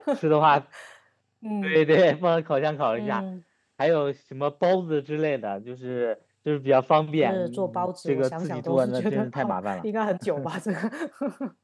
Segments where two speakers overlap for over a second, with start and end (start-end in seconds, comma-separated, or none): 7.2-9.8